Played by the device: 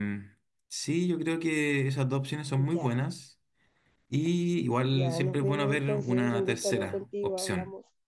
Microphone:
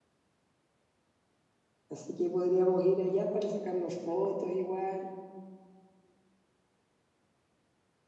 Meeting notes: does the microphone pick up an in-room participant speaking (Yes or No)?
Yes